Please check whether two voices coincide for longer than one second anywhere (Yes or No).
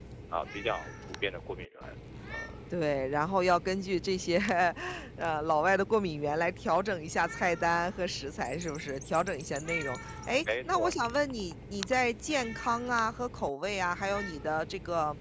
No